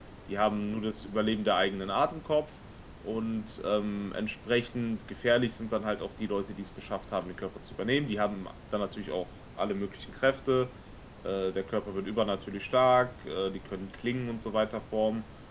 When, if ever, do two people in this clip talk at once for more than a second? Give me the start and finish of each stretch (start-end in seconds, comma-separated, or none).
none